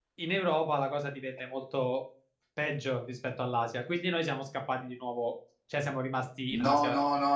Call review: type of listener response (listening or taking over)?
taking over